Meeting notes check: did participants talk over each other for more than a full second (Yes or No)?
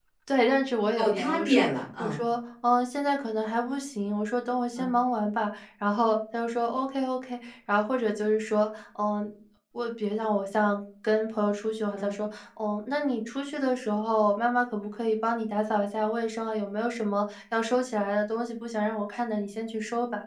Yes